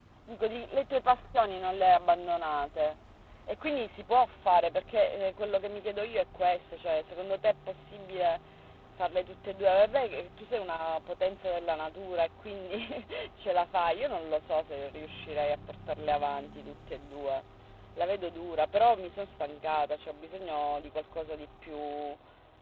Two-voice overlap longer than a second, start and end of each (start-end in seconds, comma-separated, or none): none